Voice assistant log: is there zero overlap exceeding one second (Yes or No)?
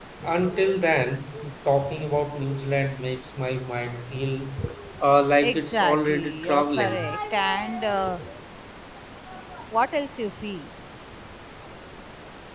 No